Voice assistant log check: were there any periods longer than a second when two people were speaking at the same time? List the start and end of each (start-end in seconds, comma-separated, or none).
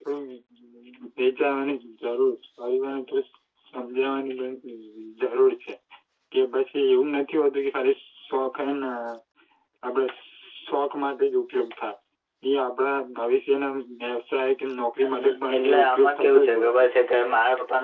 15.0-16.7